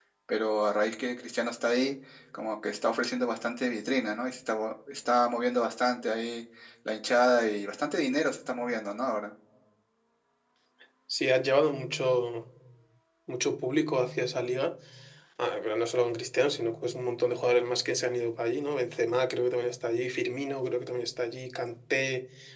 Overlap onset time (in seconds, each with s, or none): none